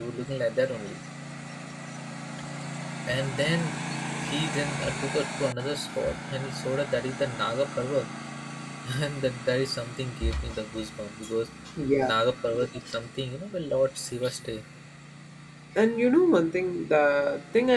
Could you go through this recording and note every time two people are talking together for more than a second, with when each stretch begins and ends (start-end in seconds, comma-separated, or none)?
none